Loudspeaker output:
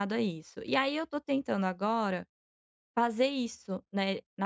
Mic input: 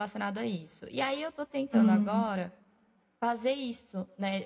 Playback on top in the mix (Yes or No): No